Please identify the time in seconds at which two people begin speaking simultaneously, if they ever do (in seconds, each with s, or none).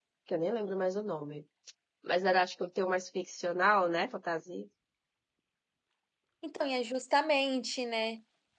none